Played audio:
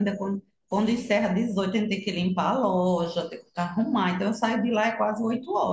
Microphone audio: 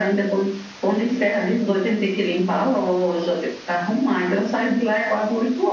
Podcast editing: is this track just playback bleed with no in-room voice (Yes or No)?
Yes